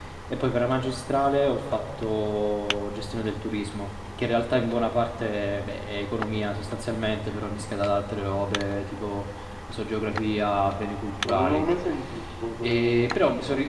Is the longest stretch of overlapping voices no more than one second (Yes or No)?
Yes